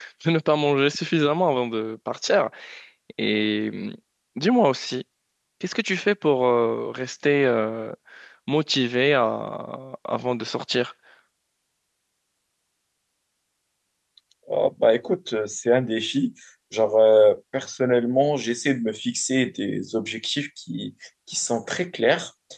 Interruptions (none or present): none